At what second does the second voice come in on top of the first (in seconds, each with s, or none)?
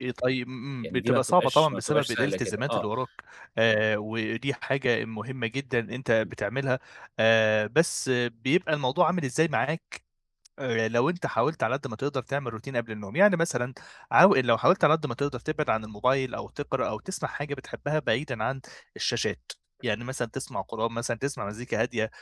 0.8 s